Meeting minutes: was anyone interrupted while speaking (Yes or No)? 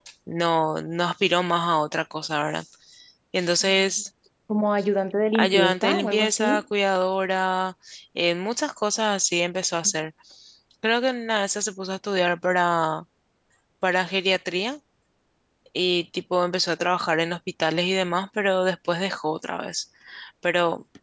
Yes